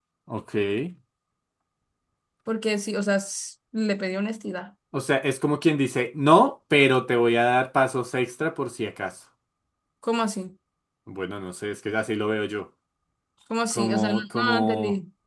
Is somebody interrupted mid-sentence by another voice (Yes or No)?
Yes